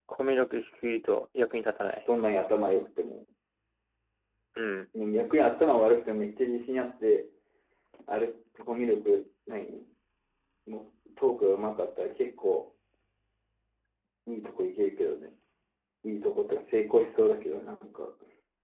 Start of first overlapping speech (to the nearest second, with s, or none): none